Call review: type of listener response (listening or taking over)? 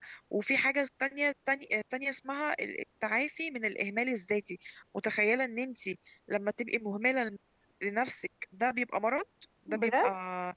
listening